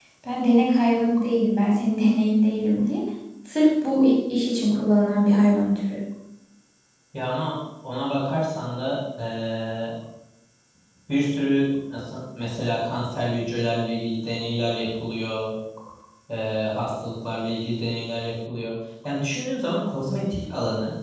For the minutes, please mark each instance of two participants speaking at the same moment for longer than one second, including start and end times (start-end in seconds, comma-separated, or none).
none